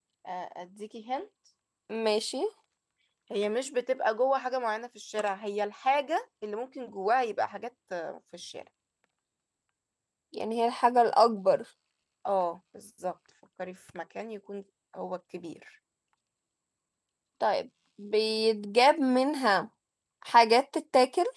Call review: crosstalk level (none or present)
none